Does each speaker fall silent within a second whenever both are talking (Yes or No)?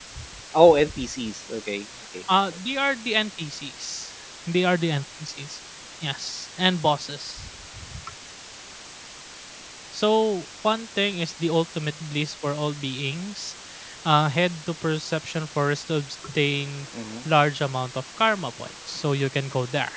Yes